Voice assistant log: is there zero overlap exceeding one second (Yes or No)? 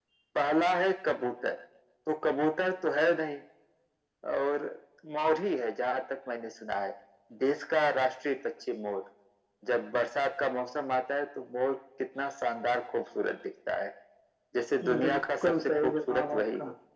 No